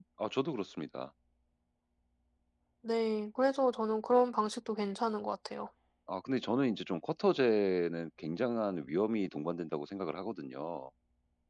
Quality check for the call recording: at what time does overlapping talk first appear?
none

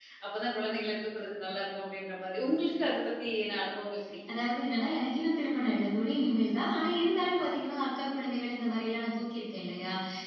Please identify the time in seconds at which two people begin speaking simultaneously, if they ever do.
none

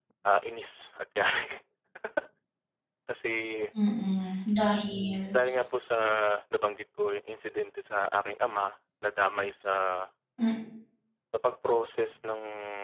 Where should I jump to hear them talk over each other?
none

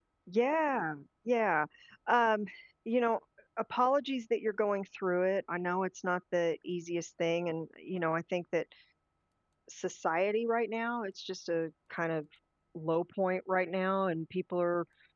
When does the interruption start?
none

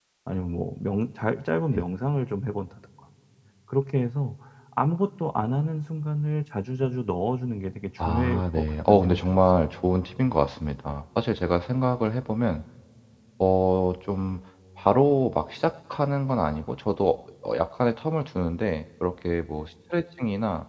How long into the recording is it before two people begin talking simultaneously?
8.0 s

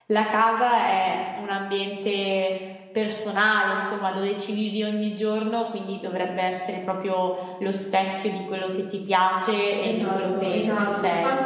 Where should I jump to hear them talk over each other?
9.8 s

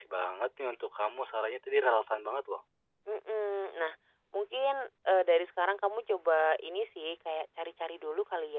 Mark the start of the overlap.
none

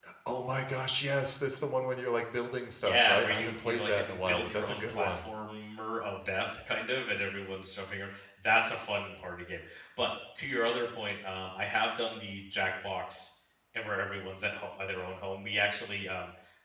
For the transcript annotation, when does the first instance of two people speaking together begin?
2.8 s

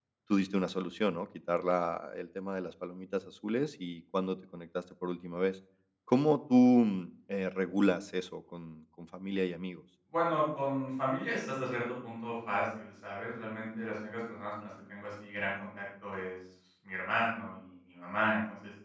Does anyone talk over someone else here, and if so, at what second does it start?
none

